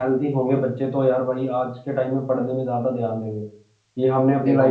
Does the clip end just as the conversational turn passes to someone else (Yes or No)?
No